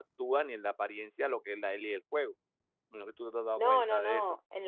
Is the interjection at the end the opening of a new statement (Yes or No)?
Yes